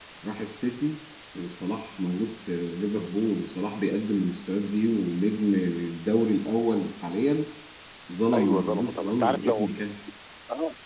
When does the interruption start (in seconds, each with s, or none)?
8.3 s